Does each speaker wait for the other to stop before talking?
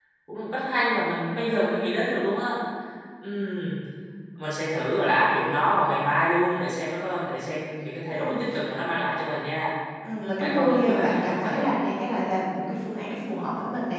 No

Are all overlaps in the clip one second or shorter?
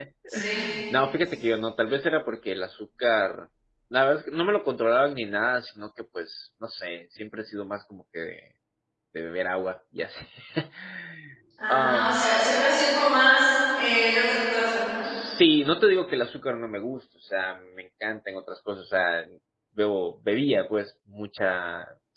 Yes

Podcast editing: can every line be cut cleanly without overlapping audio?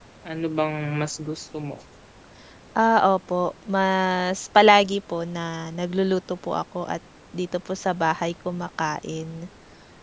Yes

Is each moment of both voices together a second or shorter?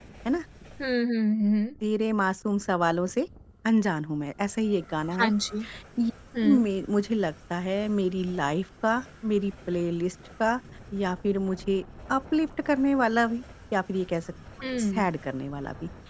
Yes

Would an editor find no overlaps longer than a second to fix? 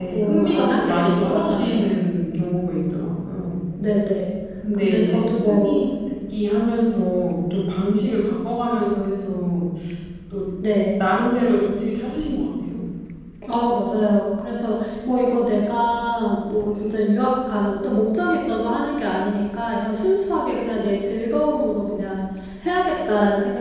No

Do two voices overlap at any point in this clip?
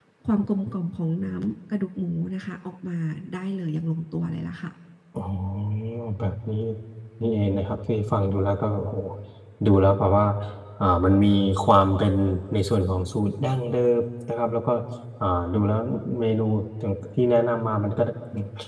No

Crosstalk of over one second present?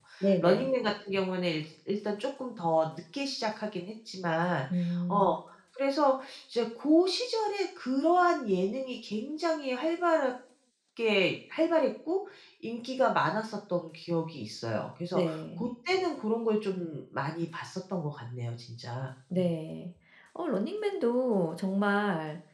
No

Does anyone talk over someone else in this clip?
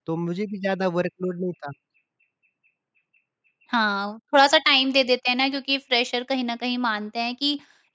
No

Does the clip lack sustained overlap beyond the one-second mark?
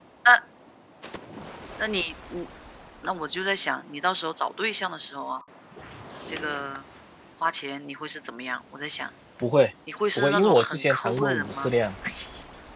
No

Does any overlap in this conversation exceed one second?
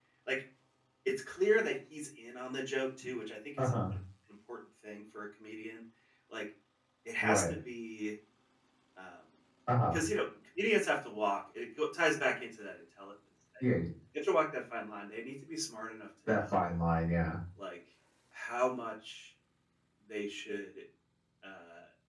No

